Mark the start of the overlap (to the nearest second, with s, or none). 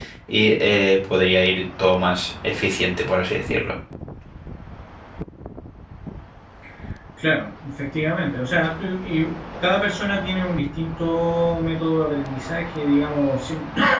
none